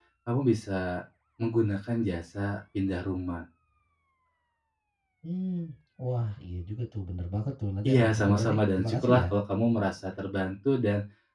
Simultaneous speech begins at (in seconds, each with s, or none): 7.8 s